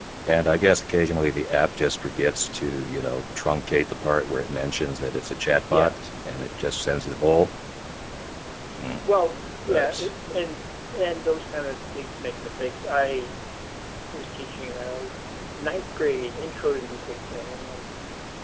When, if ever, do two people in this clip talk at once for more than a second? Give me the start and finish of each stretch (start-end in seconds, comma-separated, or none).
none